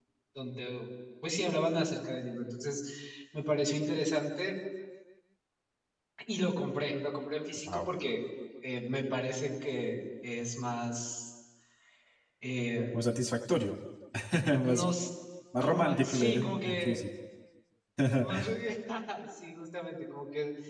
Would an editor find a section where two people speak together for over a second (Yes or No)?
Yes